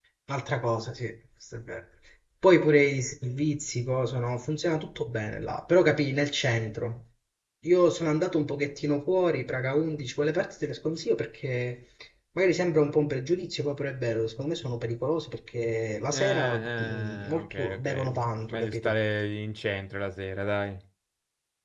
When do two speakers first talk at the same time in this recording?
16 s

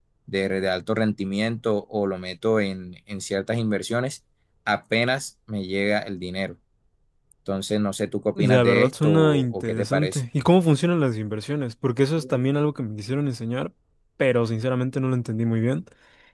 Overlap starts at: 8 s

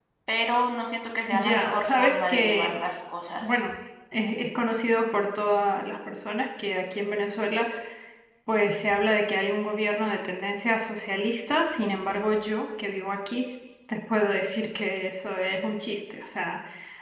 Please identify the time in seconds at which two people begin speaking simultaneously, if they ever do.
1 s

